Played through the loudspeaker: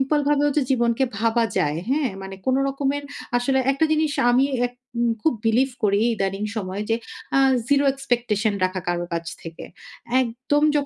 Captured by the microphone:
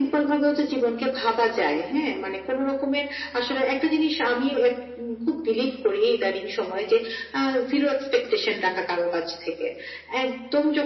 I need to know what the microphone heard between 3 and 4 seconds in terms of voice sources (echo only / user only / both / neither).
echo only